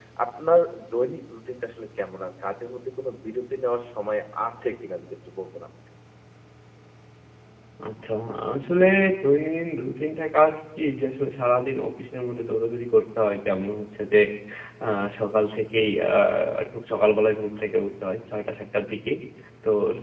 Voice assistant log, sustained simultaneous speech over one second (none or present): none